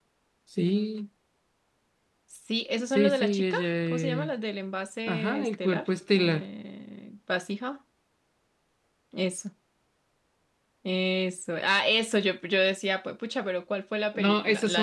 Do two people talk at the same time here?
Yes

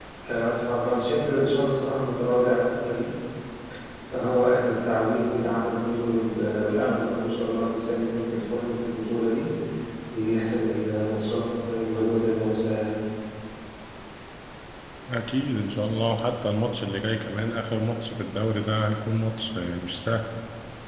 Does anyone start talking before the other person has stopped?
No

